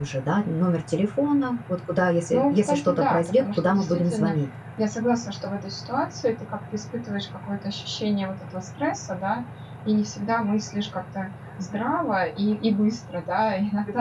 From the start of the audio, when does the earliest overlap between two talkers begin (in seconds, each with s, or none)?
2.3 s